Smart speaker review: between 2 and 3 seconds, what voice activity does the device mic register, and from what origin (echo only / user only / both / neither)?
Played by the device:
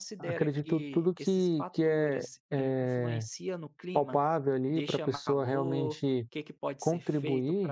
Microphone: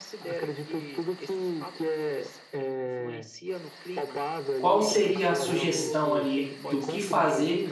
echo only